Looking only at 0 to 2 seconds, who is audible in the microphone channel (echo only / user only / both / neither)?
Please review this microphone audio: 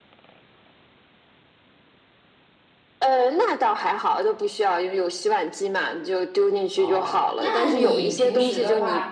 neither